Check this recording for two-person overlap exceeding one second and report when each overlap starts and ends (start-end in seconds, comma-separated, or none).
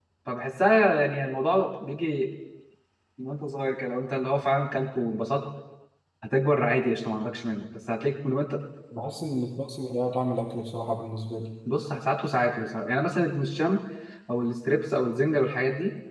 none